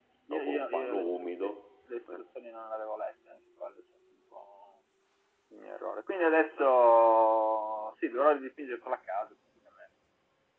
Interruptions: present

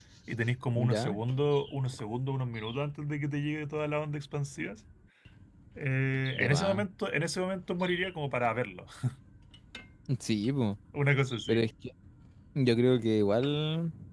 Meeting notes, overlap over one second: none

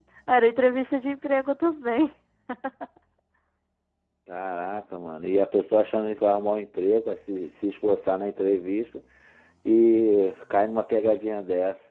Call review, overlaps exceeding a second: none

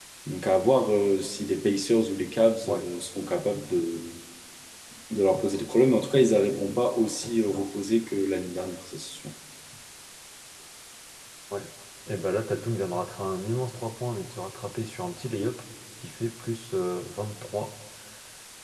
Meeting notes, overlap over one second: none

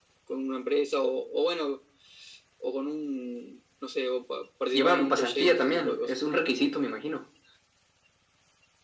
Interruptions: present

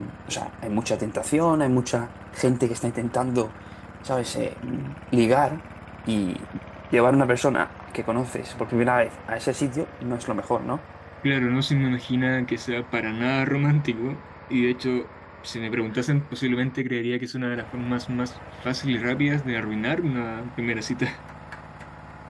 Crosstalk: none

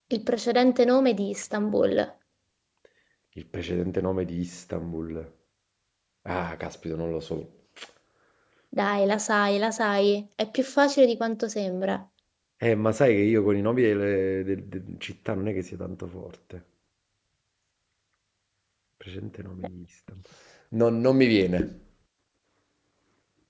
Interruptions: none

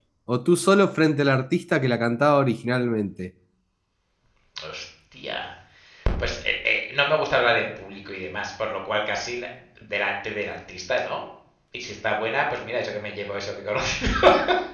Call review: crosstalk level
none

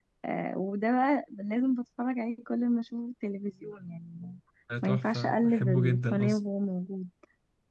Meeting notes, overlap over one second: present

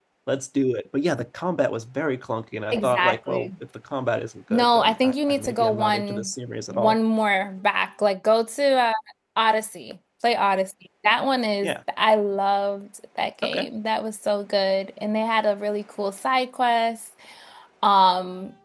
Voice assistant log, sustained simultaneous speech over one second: present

